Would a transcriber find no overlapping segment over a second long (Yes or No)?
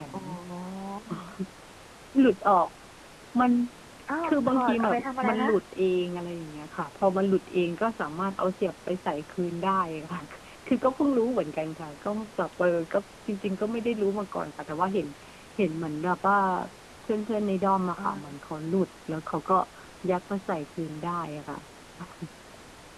No